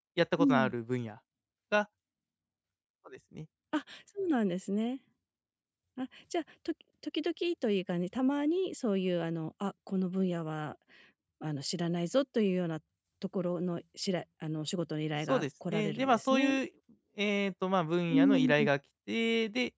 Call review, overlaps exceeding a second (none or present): present